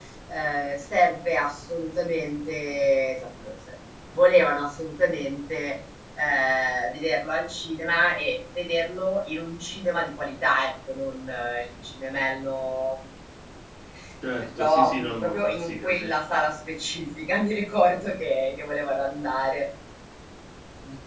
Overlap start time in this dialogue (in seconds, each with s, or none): 14.6 s